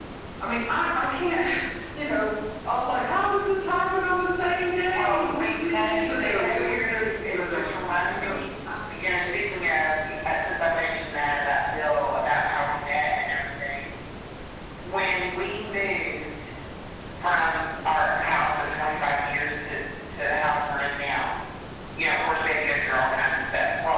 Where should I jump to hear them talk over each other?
4.9 s

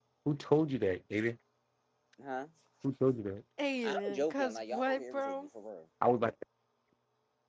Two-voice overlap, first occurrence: 3.8 s

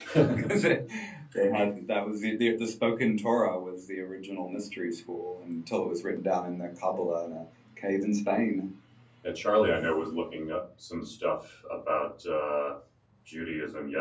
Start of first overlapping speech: none

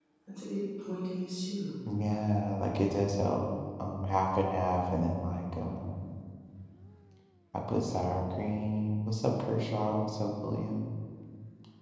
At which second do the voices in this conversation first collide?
none

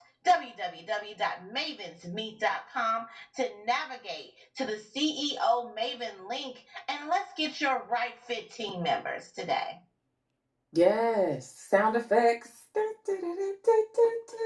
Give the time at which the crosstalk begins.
none

